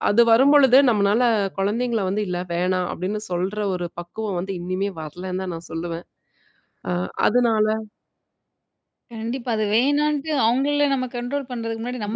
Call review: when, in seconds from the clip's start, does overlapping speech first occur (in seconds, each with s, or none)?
none